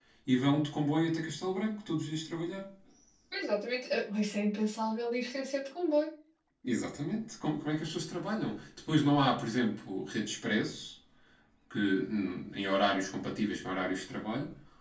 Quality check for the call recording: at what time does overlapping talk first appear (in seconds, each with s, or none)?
none